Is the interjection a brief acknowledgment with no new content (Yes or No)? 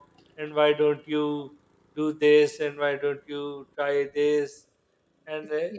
No